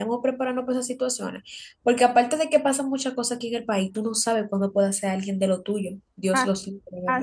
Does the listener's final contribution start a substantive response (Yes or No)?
Yes